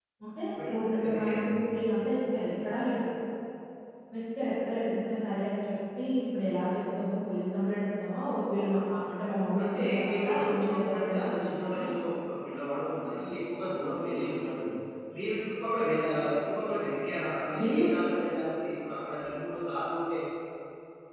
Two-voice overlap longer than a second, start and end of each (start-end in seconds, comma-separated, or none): 9.6-11.9